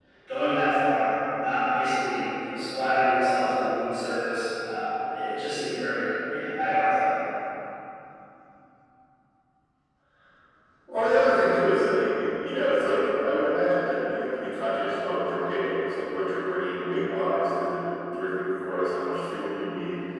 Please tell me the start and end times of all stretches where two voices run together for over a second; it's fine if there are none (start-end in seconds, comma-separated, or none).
none